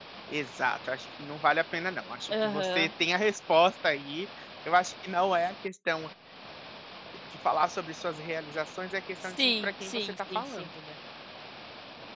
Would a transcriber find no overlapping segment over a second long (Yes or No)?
No